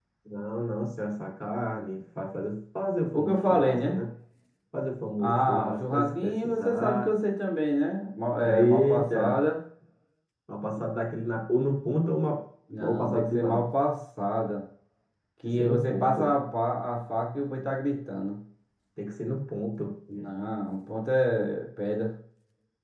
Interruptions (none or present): present